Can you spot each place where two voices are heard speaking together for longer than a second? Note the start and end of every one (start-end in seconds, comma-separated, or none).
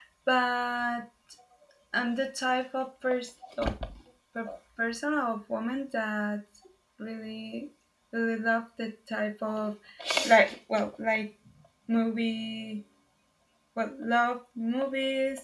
none